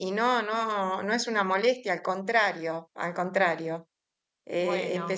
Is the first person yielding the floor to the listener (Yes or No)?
No